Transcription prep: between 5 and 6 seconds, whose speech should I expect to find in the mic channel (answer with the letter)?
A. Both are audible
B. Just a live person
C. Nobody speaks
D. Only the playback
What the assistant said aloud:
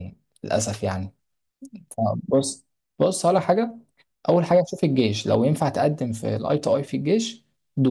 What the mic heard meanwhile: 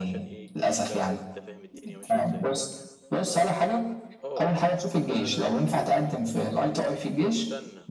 A